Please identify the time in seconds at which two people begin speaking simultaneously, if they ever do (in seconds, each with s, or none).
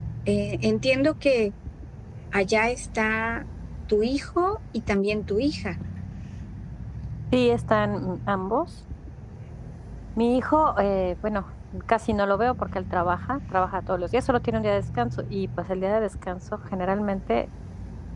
none